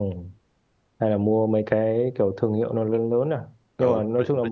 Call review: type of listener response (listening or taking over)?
taking over